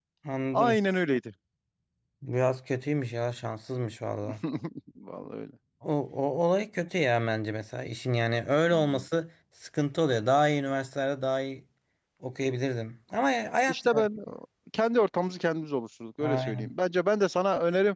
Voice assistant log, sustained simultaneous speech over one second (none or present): none